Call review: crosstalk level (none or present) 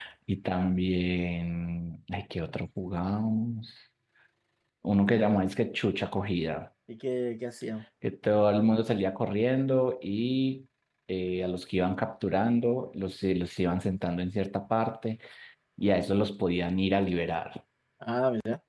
none